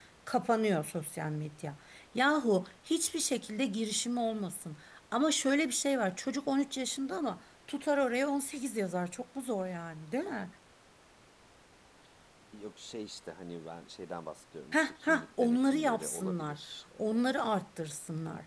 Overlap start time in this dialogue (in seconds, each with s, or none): 14.7 s